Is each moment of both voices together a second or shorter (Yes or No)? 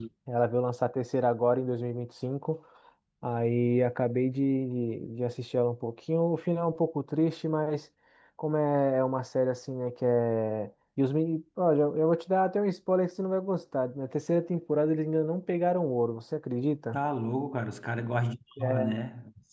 Yes